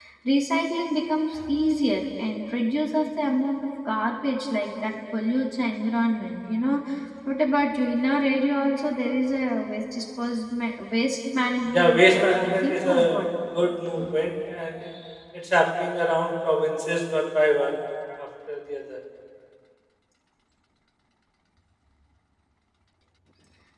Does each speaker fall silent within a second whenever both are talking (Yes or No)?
No